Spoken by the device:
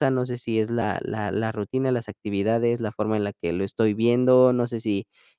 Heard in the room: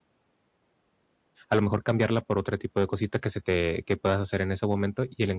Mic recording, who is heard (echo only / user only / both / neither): user only